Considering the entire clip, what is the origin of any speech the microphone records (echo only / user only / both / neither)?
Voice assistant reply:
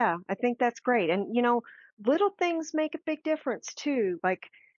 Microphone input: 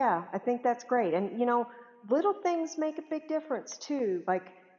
echo only